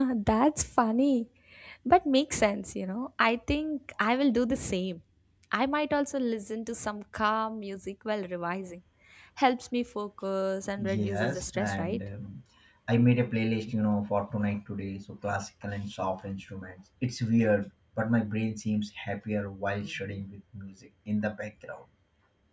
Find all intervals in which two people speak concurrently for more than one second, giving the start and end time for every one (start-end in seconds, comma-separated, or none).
10.8-12.0